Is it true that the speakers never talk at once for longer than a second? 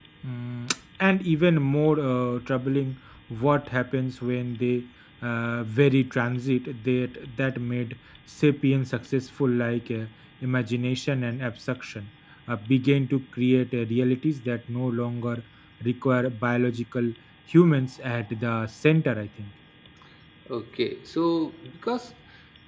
Yes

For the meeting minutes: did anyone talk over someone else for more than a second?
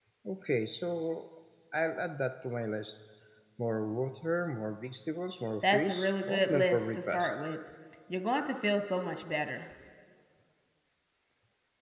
Yes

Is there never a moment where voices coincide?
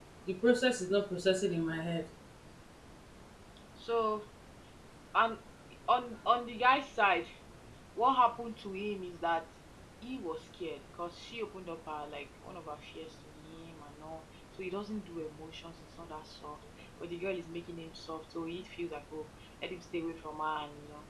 Yes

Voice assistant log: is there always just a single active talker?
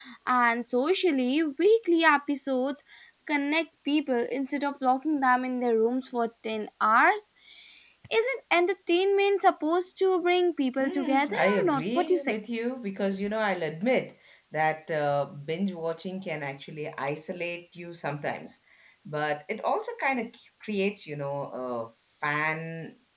No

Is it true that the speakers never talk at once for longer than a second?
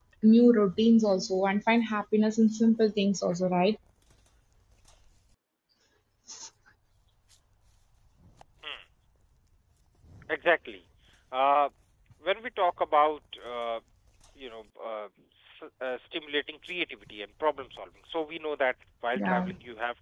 Yes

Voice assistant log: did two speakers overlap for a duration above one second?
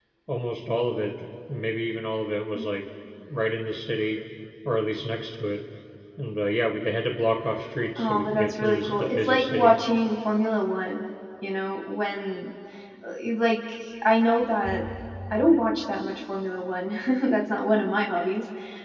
Yes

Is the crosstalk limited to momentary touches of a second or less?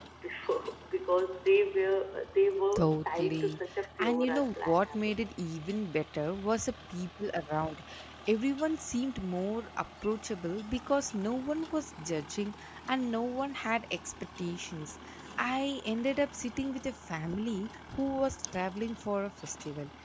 No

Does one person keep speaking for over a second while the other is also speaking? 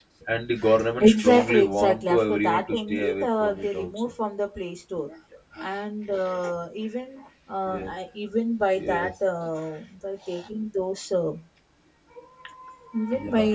Yes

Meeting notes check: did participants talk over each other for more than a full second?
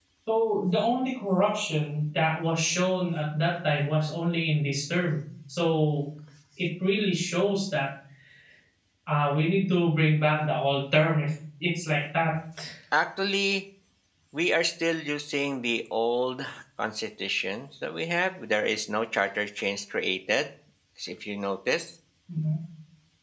No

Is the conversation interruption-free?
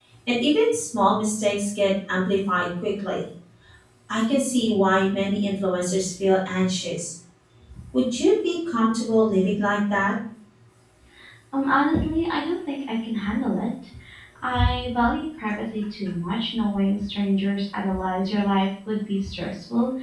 Yes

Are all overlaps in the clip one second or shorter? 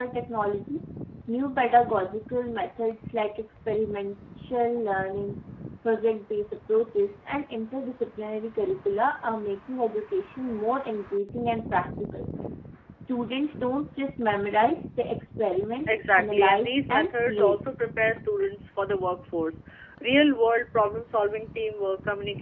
No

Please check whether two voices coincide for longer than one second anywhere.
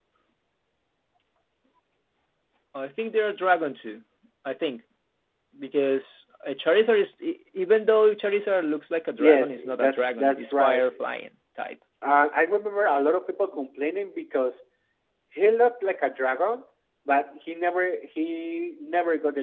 Yes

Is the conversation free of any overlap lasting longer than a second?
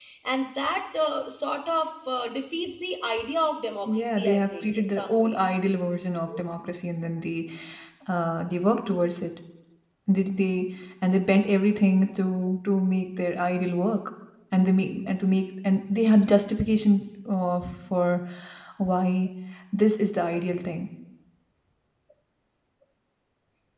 No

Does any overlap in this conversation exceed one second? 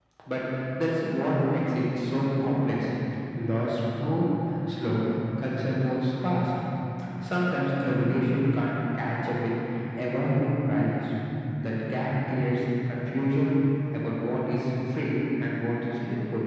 No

